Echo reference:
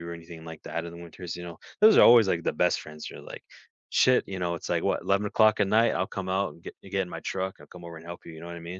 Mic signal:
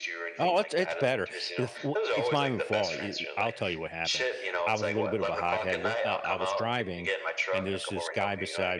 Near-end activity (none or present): present